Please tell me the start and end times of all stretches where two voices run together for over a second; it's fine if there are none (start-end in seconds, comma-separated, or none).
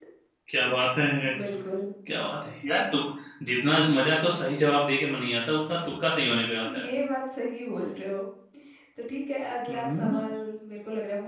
none